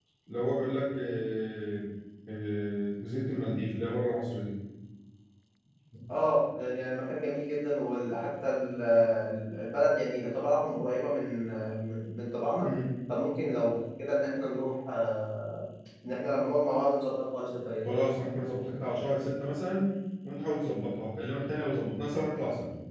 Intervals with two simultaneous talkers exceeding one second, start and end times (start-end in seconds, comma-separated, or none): none